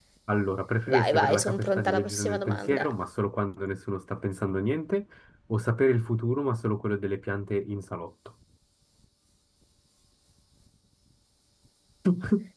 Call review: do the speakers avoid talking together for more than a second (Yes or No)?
No